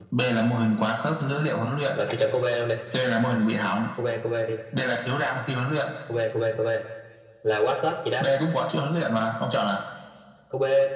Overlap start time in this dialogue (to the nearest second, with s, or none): none